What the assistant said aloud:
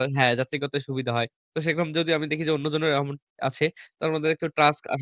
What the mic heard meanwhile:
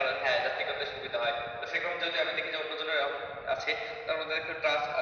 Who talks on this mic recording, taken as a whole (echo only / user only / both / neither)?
echo only